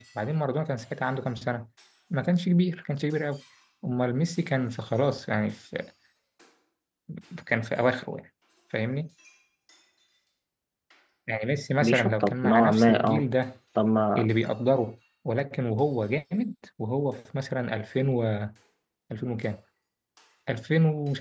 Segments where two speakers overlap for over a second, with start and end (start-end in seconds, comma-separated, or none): 11.8-13.2